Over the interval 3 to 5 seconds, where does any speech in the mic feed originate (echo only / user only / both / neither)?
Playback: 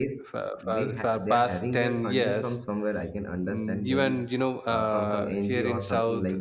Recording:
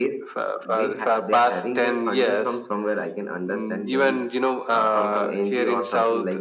echo only